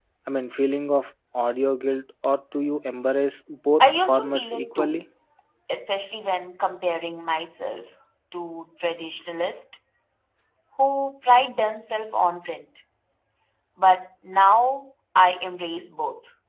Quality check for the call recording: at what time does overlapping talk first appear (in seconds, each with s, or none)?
3.8 s